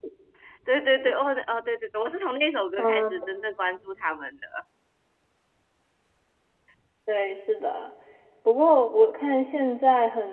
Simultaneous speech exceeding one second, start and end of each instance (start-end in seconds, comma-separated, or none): none